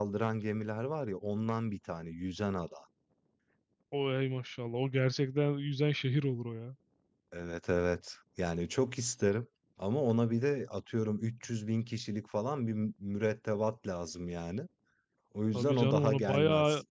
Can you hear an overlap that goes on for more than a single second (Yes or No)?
Yes